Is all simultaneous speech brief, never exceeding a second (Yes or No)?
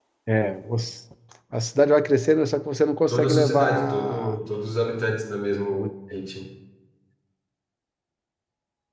No